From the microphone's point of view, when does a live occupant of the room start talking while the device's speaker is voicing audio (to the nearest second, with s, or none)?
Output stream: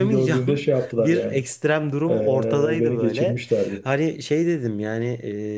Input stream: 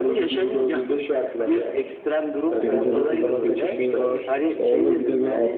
3 s